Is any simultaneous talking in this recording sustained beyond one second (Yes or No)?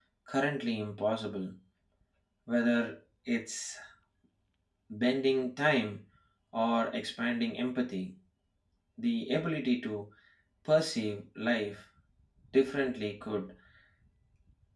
No